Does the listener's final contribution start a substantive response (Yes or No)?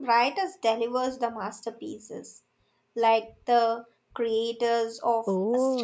Yes